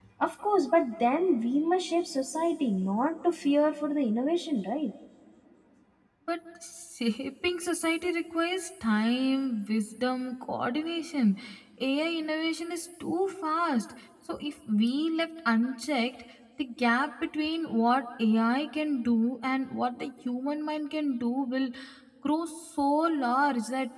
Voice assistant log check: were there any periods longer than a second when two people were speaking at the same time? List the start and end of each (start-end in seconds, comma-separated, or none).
none